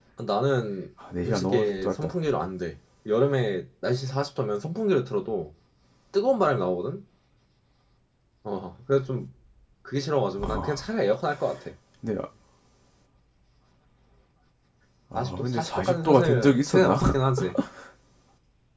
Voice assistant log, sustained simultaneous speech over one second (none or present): present